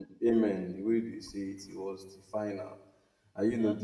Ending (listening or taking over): listening